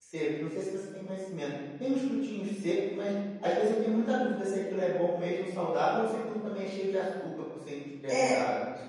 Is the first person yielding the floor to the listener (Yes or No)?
Yes